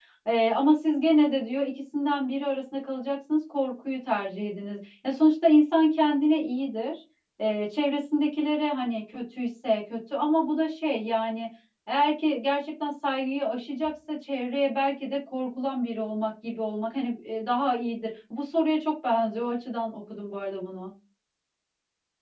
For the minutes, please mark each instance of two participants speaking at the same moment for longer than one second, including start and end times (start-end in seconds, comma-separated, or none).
none